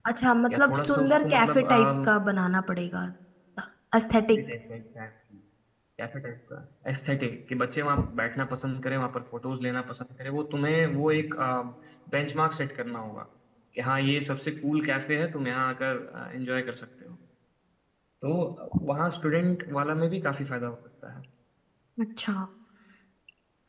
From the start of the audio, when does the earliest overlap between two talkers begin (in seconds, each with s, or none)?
0.5 s